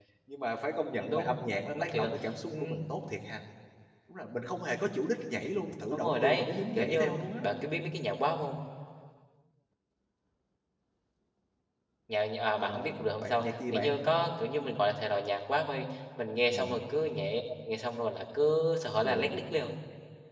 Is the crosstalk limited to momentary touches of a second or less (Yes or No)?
No